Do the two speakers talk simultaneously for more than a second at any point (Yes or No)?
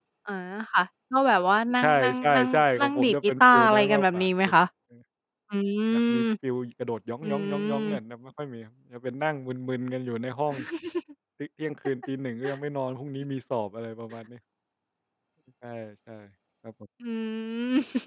Yes